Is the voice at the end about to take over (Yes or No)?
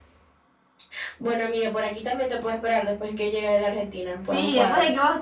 Yes